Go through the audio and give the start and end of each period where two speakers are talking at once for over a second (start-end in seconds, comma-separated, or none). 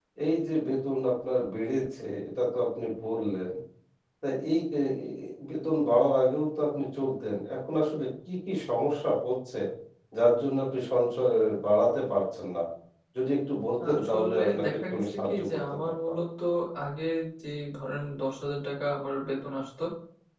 13.8-16.2